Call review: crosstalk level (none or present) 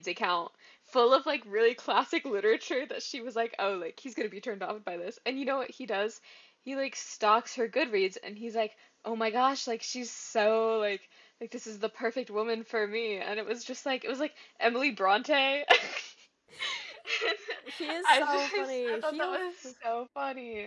present